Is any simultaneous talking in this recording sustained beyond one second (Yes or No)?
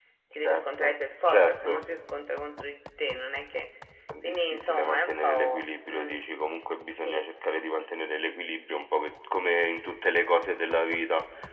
Yes